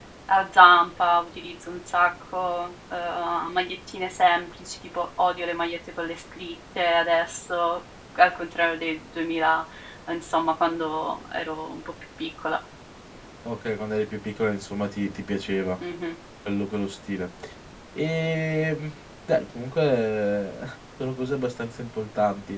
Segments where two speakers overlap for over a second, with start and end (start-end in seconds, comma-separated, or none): none